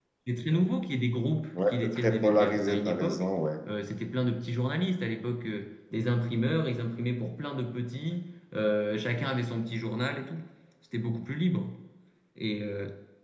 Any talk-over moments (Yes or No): Yes